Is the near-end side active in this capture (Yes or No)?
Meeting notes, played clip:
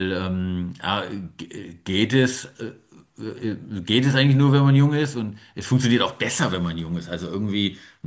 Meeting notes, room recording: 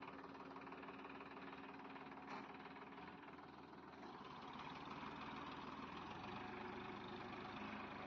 No